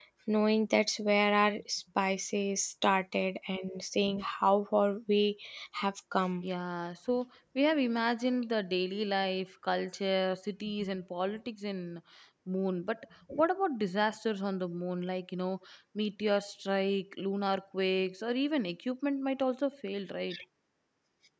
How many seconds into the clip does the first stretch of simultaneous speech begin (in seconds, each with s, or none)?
none